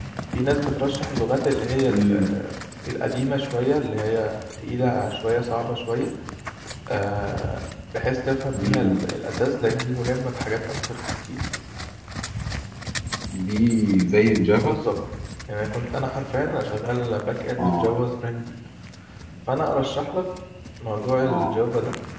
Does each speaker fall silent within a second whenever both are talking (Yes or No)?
Yes